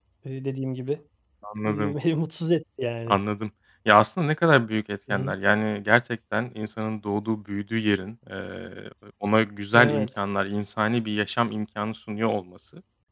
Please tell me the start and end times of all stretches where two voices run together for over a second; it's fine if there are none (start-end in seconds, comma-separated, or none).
none